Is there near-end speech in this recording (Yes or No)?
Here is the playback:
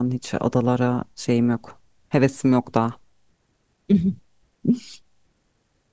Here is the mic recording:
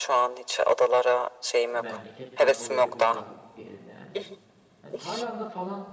Yes